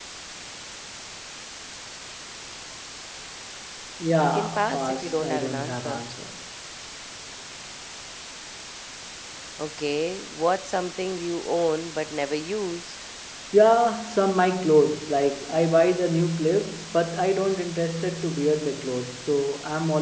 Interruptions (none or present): present